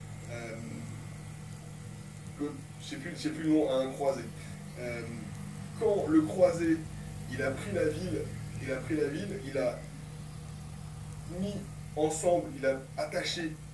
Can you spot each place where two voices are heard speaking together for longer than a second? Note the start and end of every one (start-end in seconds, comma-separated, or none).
none